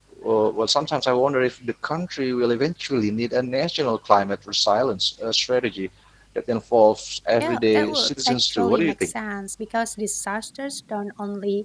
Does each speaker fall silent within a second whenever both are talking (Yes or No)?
No